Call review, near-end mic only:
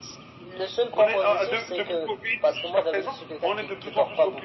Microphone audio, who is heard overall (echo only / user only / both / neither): echo only